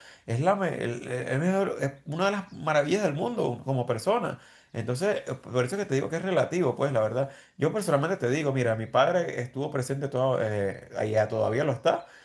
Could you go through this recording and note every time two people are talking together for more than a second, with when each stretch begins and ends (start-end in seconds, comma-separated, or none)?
none